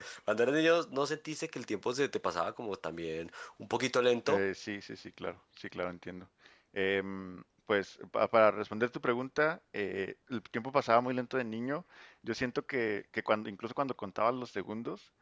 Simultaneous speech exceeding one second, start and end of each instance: none

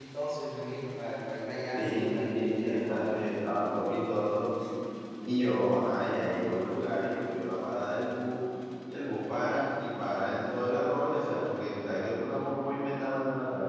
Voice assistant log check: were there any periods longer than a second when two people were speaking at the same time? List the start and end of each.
1.8-3.2

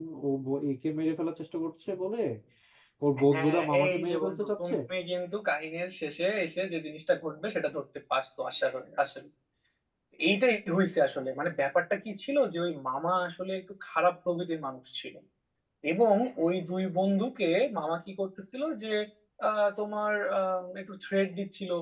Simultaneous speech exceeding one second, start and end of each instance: 3.3-4.8

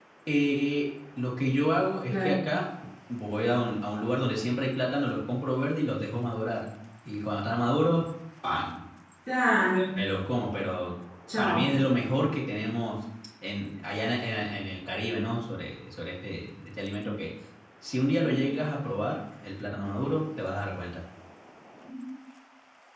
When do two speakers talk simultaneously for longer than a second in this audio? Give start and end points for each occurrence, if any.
none

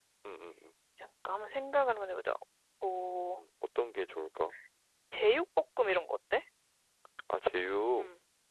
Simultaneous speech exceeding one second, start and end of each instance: none

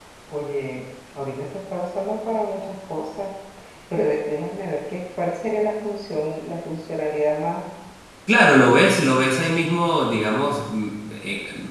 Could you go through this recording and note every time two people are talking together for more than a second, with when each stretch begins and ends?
none

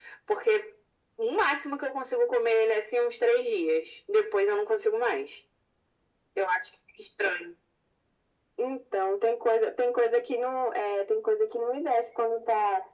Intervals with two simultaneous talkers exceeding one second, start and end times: none

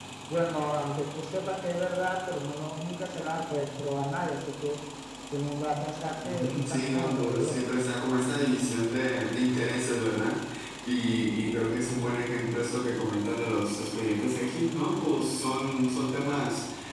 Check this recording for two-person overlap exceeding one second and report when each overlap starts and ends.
6.2-7.5

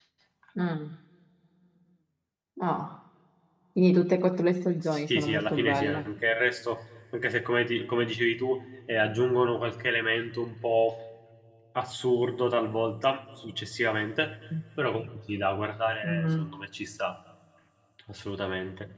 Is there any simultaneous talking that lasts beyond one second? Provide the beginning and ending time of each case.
4.8-6.0

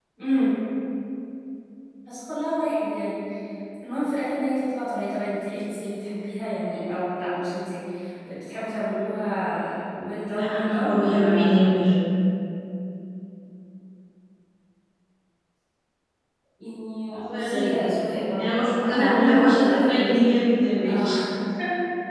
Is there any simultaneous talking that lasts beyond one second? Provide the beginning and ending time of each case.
10.3-11.6, 18.4-20.1

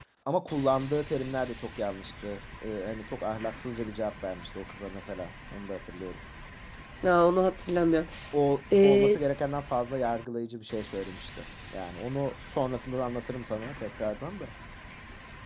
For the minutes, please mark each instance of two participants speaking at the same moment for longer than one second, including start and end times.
none

